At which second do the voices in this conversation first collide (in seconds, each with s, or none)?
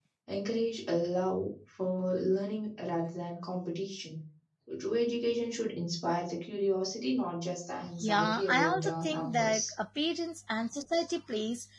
8.0 s